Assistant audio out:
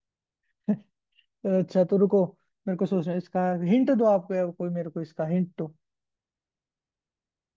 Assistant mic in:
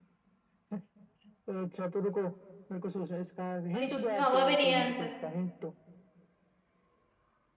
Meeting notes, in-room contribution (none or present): present